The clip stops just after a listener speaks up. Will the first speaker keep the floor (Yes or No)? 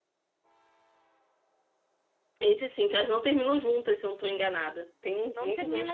No